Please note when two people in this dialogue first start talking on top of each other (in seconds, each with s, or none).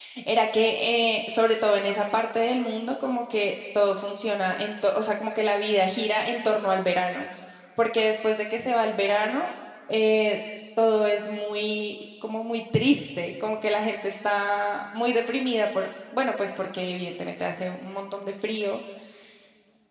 none